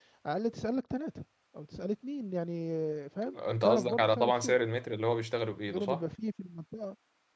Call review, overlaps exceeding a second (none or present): present